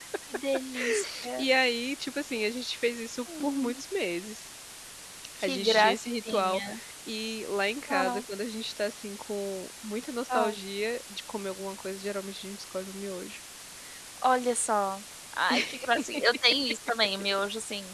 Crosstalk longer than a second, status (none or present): present